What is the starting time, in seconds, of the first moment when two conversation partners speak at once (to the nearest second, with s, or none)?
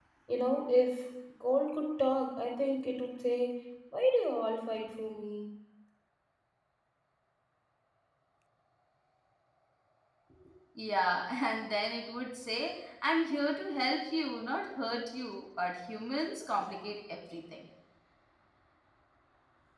none